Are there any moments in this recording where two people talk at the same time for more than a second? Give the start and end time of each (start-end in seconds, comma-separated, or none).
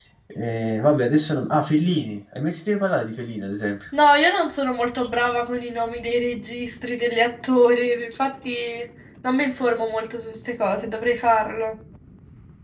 none